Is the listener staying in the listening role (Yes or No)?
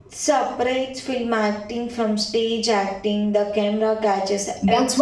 No